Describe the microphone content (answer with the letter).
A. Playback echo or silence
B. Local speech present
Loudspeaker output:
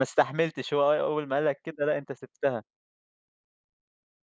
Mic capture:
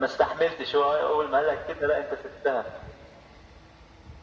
A